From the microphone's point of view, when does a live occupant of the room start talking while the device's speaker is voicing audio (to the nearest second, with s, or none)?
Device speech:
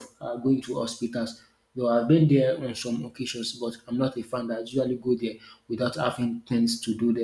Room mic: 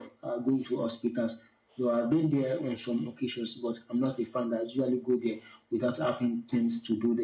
none